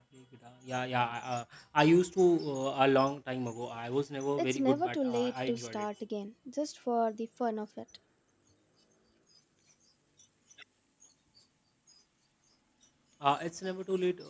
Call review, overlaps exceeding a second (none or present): present